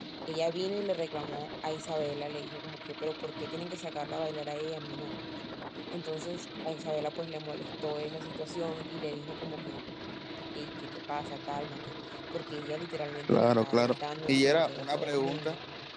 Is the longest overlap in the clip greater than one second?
Yes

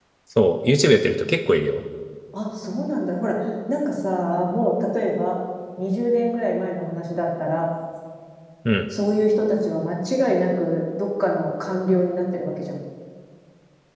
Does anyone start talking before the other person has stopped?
No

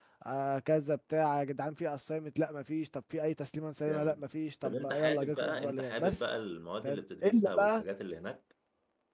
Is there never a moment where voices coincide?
No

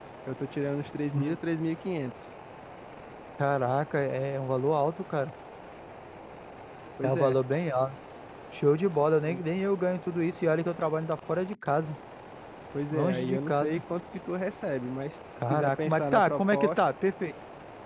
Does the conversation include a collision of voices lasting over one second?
Yes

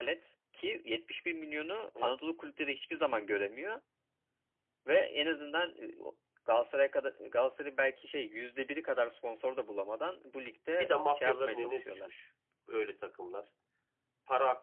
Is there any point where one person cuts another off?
Yes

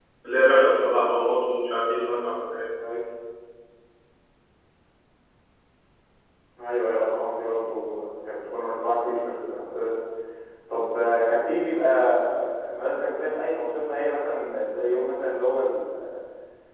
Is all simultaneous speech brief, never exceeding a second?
Yes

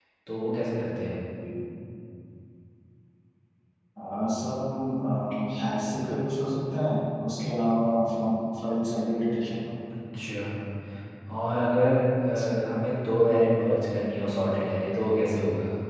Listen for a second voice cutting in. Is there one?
No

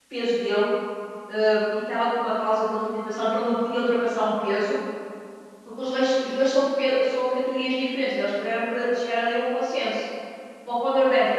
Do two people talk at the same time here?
No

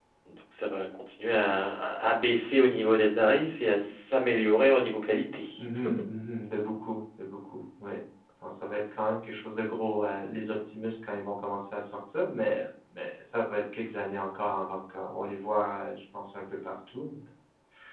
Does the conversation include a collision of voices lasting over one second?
No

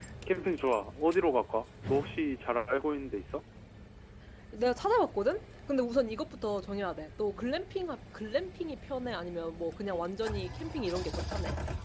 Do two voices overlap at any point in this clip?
No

